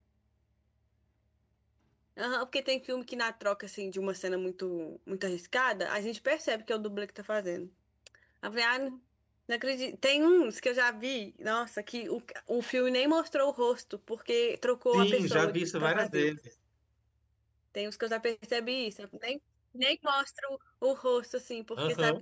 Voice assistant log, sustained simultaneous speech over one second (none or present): present